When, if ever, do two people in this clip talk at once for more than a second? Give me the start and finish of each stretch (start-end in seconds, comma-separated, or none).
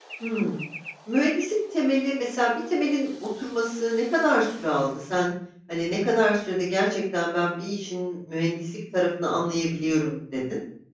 none